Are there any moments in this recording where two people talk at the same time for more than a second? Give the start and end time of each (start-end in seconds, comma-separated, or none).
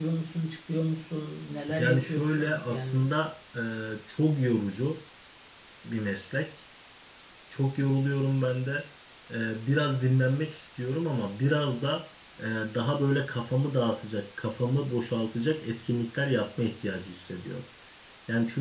1.8-3.1